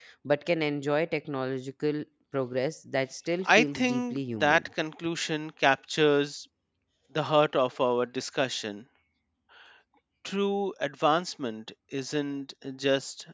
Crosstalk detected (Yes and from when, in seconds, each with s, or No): Yes, from 3.5 s